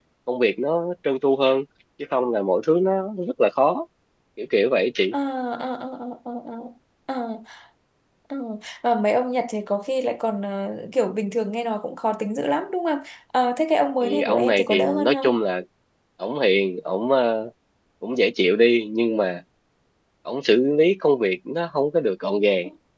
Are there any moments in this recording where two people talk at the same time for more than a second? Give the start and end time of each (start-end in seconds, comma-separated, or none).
14.0-15.3